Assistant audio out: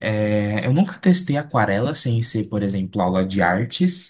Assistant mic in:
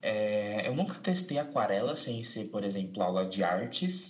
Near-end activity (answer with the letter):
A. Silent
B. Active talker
A